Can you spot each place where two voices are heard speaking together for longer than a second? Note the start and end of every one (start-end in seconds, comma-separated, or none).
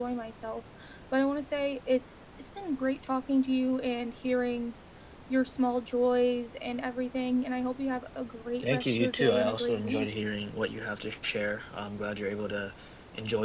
8.6-10.1